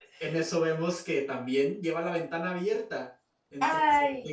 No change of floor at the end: Yes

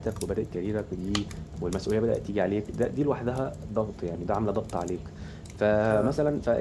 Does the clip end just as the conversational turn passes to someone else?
No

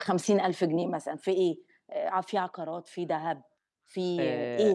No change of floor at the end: No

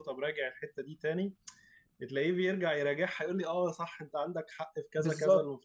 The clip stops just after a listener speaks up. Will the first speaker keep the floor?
No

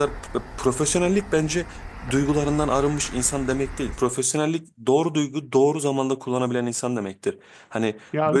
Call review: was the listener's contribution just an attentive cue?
Yes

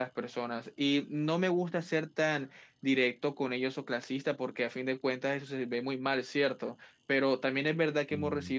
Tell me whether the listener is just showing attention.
Yes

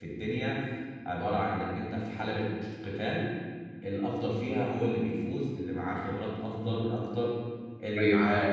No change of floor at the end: No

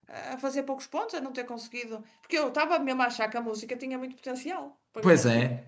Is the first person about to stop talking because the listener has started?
Yes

